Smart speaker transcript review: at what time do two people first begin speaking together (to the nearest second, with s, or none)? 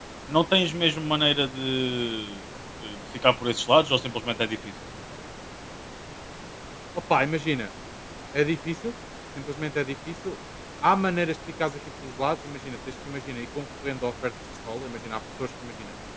none